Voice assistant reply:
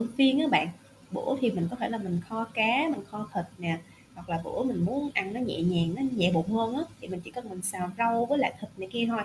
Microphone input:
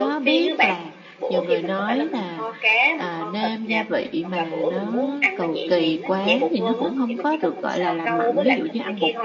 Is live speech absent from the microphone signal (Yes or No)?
No